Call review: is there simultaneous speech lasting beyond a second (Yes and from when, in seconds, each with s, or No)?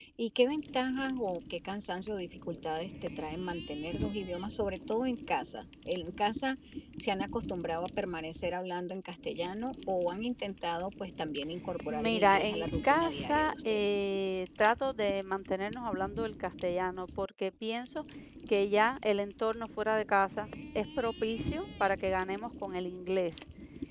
Yes, from 11.9 s